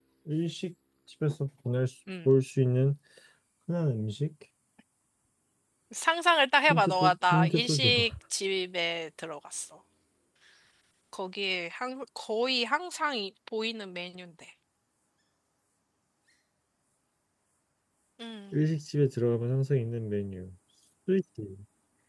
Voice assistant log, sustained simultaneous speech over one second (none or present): present